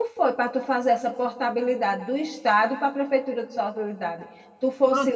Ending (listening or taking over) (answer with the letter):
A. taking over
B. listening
A